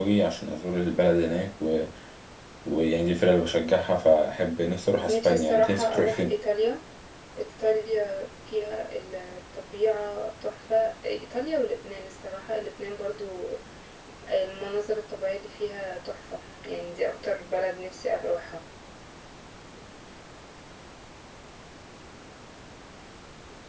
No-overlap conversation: No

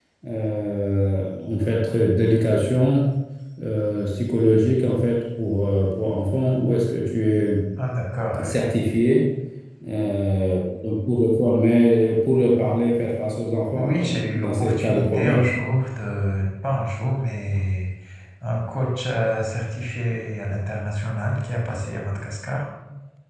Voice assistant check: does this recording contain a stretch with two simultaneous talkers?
Yes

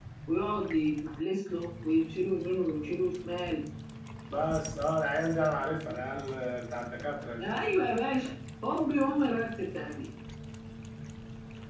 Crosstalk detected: No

